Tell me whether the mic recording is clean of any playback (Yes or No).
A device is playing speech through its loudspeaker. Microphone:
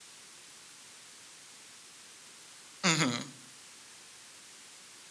Yes